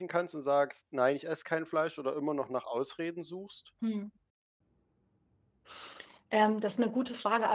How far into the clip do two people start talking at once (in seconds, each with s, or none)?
none